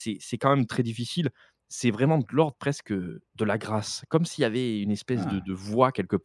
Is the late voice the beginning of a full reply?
No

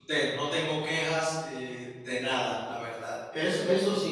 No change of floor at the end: No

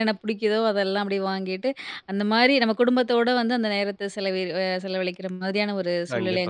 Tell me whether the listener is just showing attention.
No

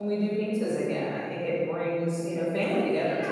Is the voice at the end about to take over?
Yes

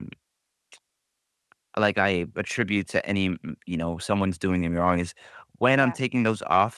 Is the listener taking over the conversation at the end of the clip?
No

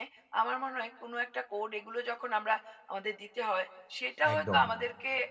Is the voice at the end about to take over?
No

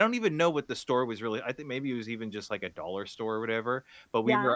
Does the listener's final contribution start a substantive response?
No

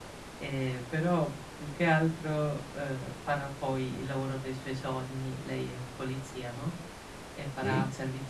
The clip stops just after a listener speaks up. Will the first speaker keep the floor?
Yes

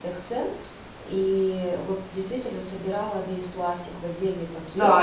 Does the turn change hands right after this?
Yes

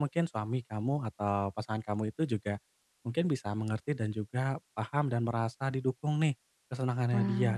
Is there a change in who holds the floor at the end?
No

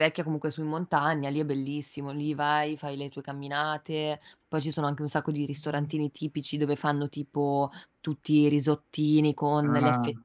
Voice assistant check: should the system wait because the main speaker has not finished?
Yes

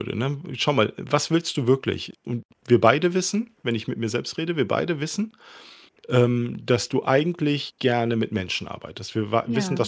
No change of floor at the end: Yes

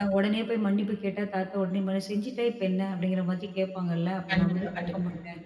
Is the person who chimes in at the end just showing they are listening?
Yes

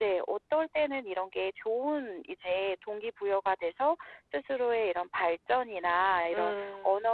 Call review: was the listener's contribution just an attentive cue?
Yes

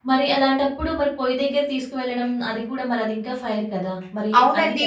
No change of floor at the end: No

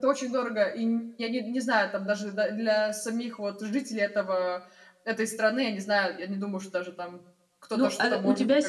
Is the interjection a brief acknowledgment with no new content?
No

